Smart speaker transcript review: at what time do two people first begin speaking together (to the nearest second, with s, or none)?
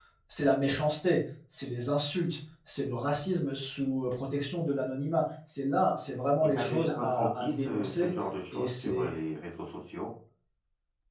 6 s